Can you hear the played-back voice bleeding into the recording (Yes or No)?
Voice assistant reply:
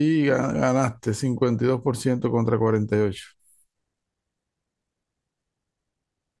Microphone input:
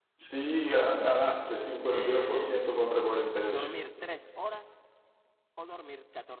Yes